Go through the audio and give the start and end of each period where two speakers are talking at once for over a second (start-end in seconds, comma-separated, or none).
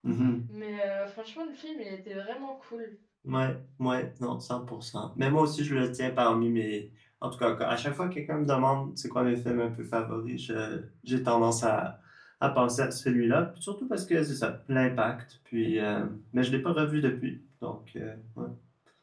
none